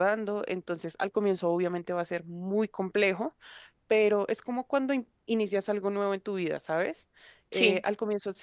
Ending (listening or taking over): listening